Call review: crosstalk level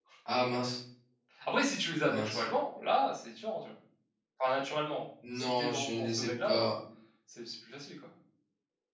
present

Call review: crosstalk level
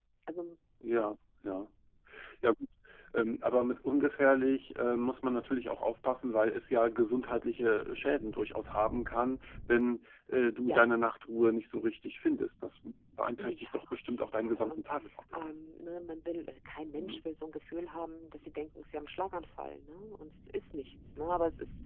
present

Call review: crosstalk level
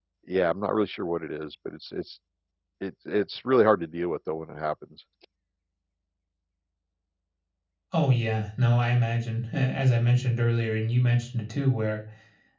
none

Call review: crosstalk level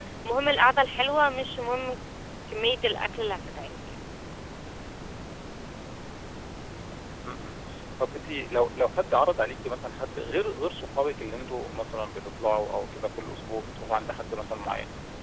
none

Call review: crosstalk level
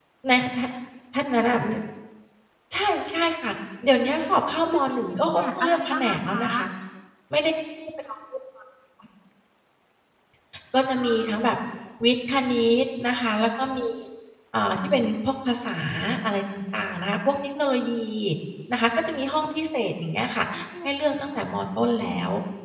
present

